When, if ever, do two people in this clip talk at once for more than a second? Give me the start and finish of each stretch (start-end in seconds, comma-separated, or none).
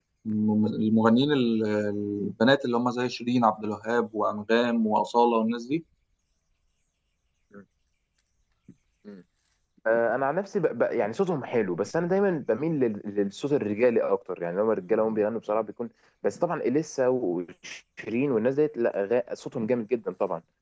none